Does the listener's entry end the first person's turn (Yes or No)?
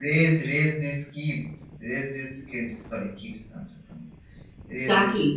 Yes